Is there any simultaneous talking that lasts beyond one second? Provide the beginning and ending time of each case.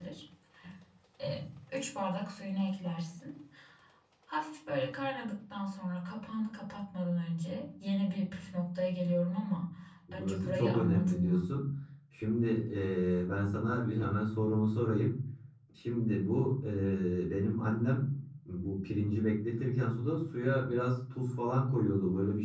10.1-11.5

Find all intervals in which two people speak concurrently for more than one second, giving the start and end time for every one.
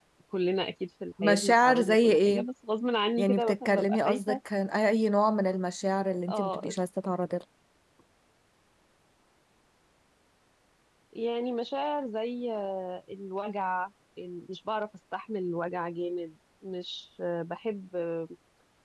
1.2-2.4, 3.2-4.4

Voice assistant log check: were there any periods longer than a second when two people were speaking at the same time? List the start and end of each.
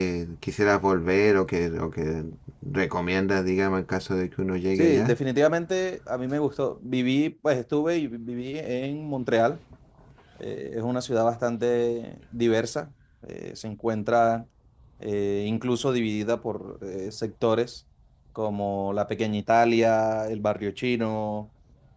none

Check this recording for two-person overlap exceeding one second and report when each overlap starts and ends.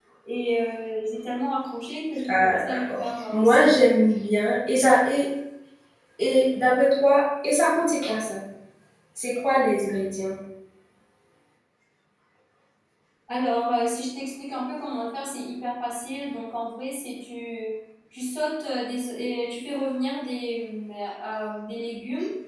2.3-3.6

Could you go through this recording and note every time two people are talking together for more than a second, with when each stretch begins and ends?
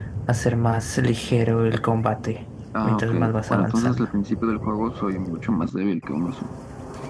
2.8-4.1

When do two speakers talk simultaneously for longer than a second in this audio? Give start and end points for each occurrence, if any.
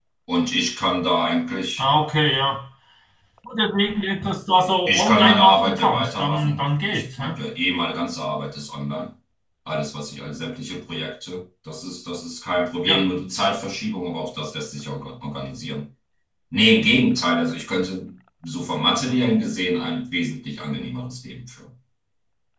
4.9-7.3

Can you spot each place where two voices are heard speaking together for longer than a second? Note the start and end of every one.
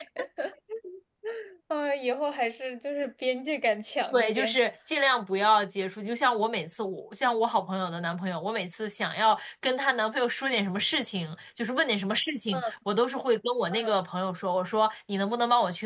none

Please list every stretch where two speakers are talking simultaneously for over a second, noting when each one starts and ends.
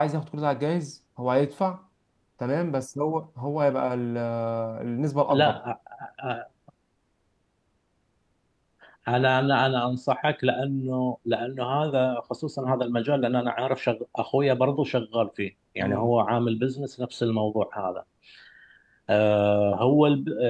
none

